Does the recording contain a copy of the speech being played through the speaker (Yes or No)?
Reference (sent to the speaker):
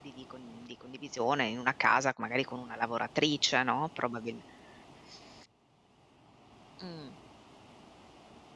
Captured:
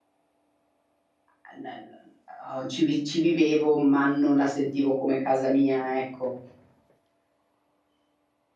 No